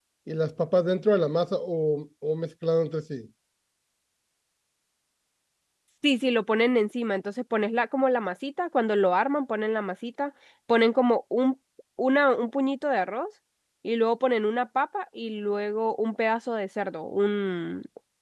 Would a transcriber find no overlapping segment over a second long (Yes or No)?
Yes